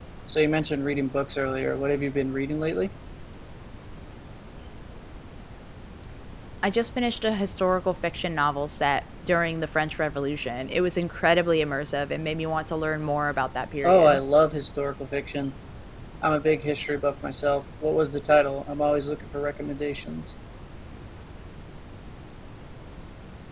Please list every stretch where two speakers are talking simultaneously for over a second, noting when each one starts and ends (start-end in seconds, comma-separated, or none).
none